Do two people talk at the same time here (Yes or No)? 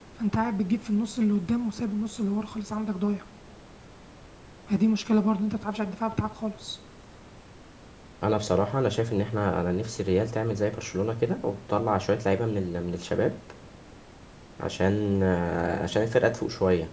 No